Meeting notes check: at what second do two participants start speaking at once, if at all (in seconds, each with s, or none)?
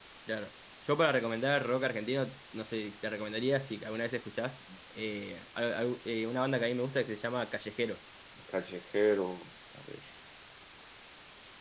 none